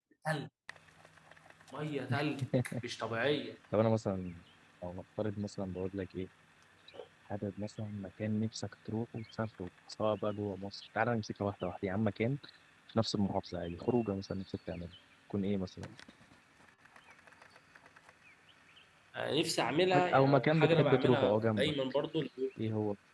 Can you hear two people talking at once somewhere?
Yes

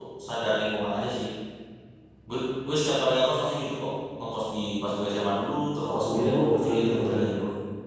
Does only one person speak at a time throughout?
No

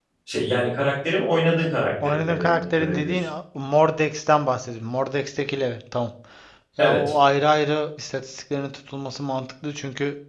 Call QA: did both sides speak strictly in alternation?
No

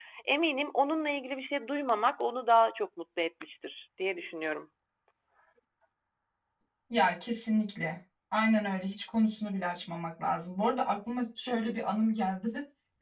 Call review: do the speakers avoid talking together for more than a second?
Yes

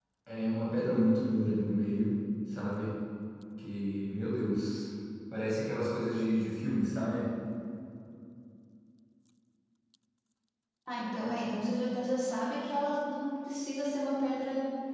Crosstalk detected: No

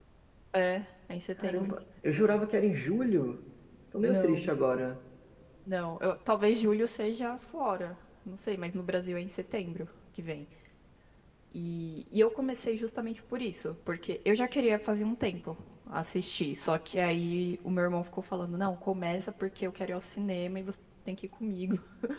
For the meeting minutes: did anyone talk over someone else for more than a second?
No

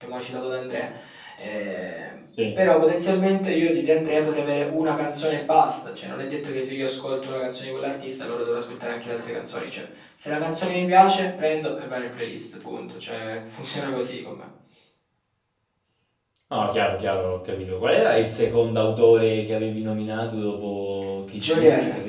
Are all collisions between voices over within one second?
Yes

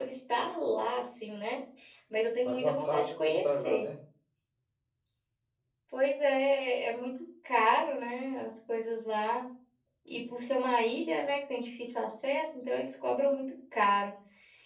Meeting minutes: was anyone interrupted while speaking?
Yes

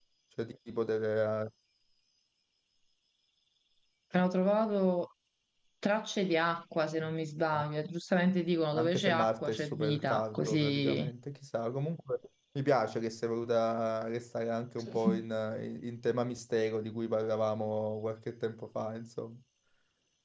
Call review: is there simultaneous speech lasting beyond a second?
Yes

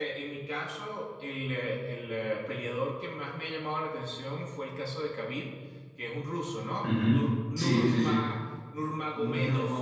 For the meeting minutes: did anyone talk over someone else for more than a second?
Yes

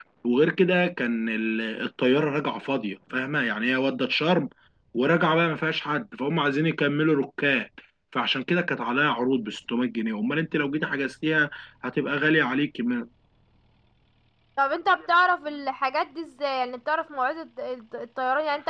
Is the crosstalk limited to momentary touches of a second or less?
Yes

